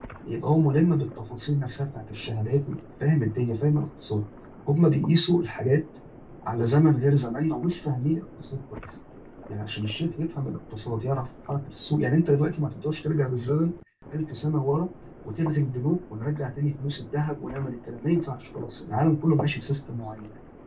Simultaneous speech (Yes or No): No